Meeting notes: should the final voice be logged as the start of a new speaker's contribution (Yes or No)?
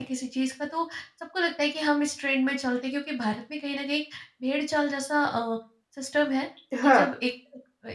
No